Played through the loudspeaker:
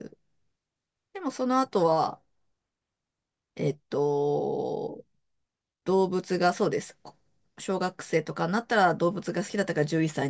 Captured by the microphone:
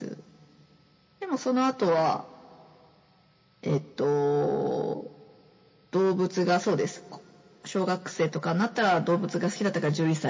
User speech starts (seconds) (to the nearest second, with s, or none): none